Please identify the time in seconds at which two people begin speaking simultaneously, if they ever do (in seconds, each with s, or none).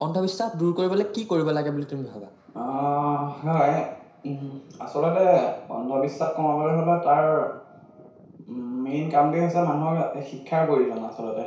none